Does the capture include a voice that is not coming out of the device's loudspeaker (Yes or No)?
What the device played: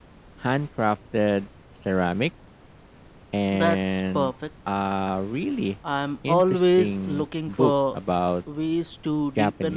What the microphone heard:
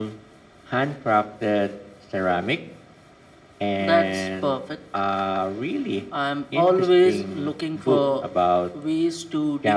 No